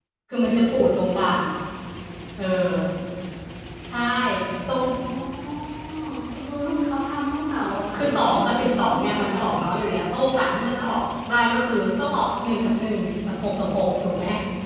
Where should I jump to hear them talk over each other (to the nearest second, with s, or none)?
8 s